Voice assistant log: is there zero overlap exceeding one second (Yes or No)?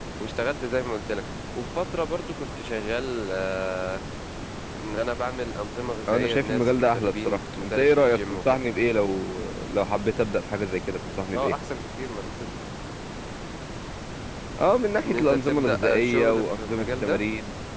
No